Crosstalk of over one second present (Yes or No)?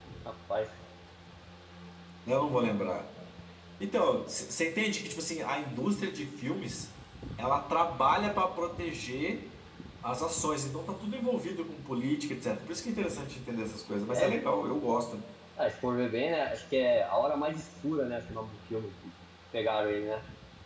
No